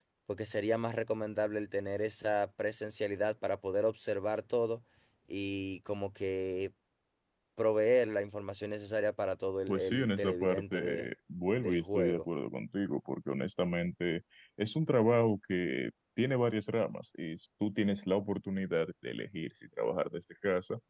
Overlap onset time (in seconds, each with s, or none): 9.7 s